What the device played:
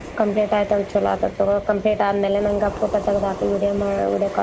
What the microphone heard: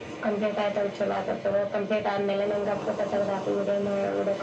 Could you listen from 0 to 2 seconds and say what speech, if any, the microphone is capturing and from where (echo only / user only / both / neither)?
echo only